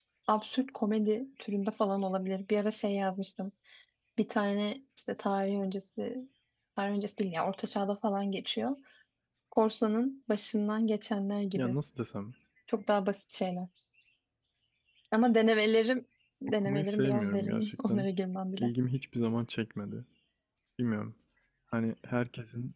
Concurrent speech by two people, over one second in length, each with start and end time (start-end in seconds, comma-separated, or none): 16.6-18.1